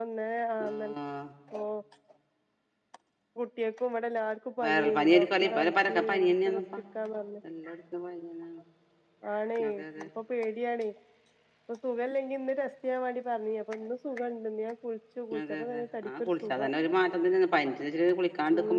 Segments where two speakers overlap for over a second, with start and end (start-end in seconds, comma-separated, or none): 4.6-6.3, 15.4-16.7